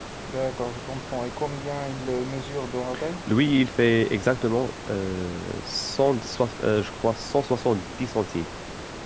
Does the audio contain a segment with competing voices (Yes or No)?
No